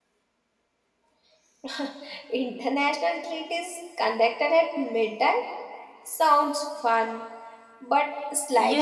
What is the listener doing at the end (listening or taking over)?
taking over